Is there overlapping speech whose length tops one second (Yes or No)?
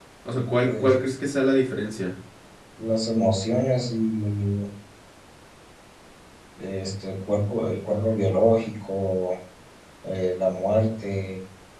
No